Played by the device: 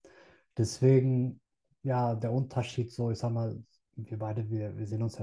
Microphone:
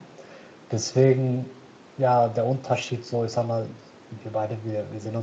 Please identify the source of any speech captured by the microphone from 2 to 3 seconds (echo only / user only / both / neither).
echo only